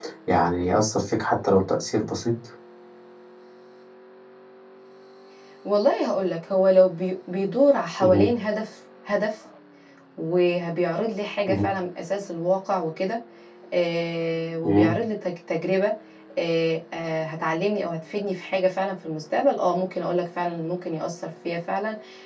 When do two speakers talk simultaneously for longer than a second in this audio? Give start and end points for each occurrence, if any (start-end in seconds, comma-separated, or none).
none